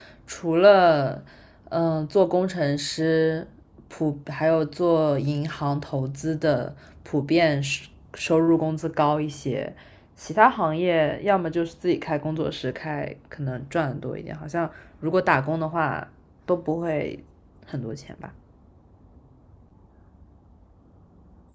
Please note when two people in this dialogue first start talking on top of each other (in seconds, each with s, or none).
none